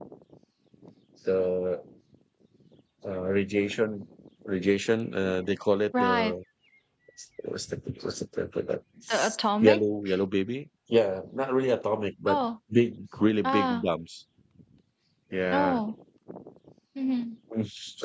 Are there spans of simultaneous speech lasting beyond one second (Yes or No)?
No